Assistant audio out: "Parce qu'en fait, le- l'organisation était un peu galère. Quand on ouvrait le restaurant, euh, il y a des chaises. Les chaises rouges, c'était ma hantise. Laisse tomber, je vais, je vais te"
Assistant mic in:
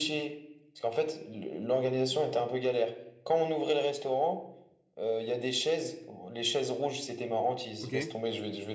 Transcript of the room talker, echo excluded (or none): ok.